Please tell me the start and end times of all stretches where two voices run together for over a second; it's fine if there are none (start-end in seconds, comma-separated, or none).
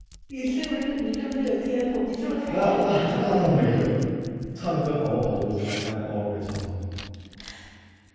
2.5-3.7